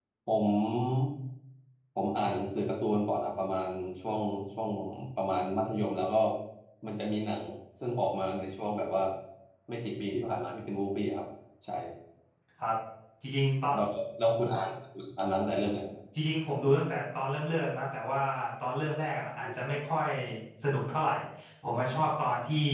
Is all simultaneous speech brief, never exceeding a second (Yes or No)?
Yes